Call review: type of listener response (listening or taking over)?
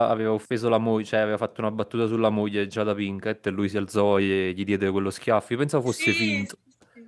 taking over